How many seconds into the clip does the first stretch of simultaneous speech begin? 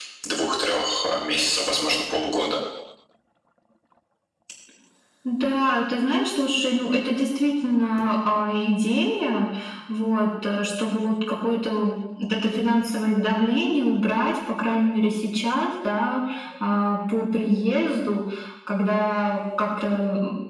none

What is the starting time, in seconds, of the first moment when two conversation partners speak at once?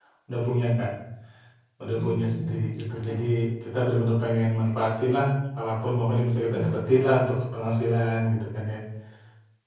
2.0 s

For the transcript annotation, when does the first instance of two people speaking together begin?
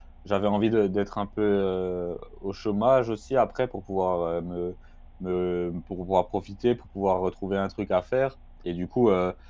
none

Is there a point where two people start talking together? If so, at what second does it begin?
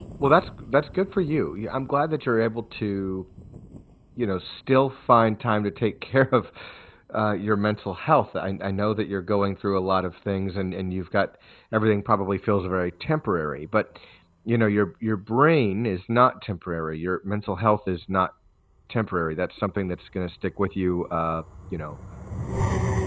none

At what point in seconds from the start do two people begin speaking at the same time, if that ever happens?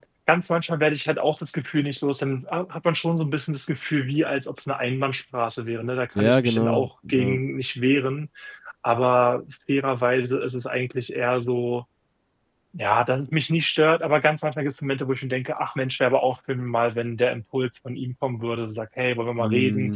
6.2 s

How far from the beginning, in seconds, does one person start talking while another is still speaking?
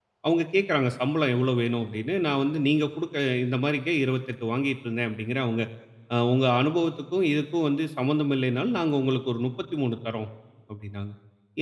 none

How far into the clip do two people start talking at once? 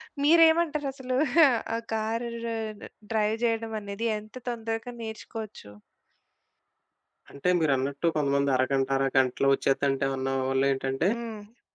none

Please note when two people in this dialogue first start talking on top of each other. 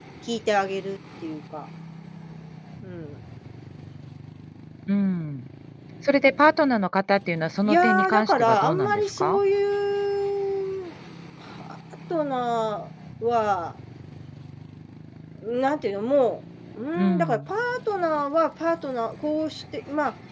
7.7 s

